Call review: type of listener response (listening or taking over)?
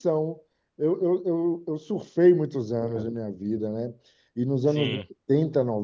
listening